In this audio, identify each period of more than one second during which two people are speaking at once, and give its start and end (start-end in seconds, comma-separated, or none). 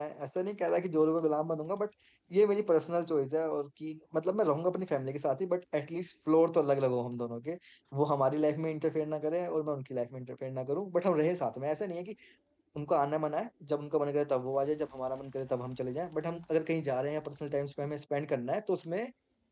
none